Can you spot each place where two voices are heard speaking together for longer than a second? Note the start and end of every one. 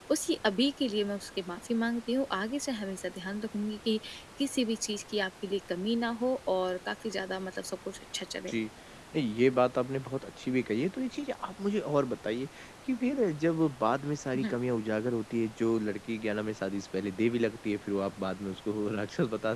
none

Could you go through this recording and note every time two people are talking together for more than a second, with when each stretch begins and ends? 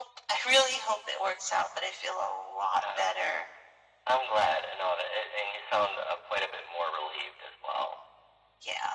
none

